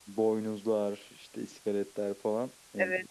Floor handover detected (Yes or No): Yes